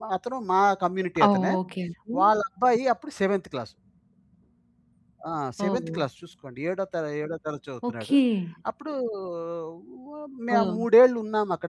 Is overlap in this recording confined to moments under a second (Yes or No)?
Yes